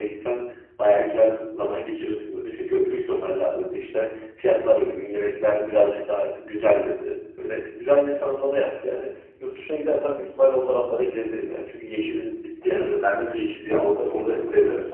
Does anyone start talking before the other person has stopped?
Yes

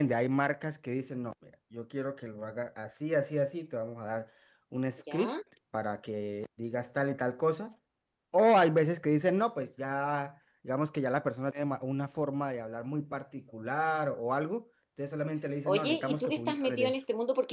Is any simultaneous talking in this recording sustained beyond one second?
Yes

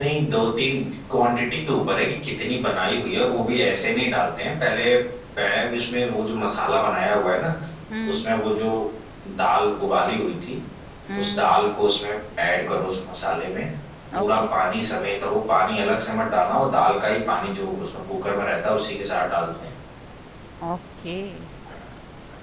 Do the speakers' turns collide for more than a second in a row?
No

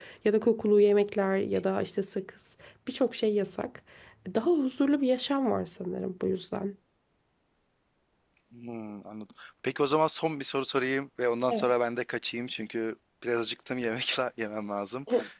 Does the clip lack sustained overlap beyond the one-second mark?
Yes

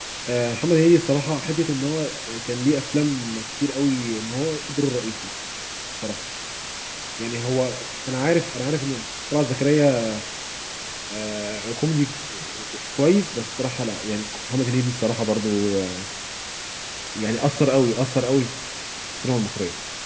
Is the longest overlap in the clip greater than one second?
No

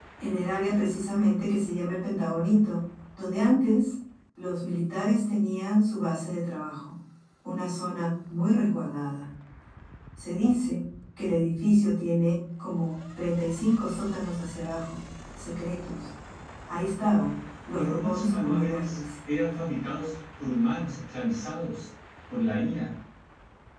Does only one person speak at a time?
No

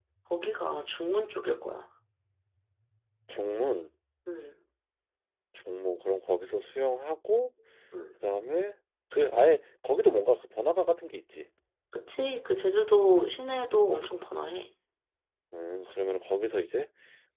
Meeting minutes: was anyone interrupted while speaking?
No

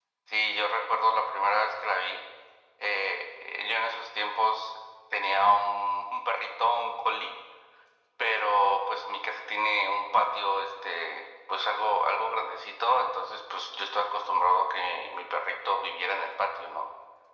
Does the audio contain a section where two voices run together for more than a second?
No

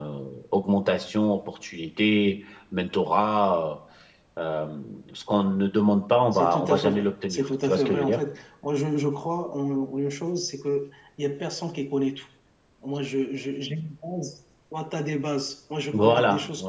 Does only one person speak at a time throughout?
No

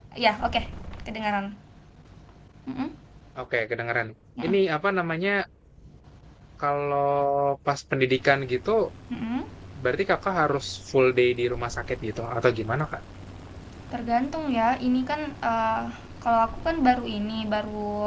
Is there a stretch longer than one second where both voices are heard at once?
No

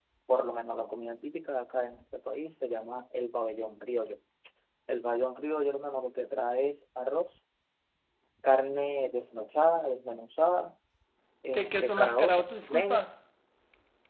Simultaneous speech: Yes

